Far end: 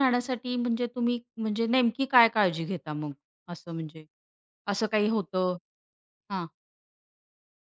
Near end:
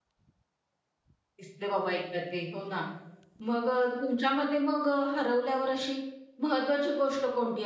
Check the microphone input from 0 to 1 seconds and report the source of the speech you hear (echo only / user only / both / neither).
neither